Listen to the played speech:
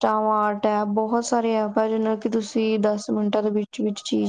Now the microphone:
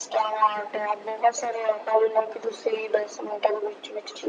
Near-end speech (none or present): none